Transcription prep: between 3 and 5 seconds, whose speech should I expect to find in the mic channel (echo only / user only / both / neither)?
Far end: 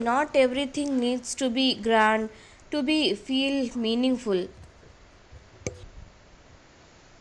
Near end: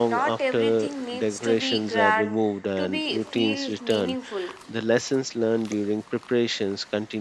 both